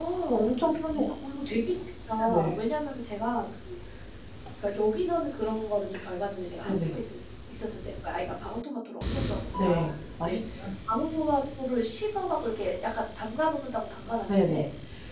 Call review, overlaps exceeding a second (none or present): none